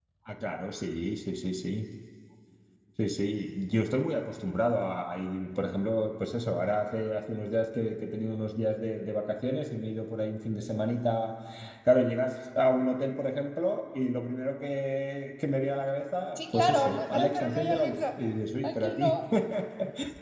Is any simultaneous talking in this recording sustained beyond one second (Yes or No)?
Yes